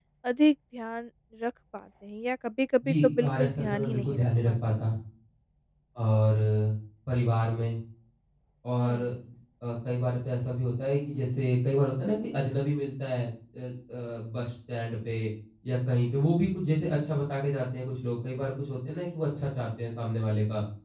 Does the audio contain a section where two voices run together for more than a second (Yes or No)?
Yes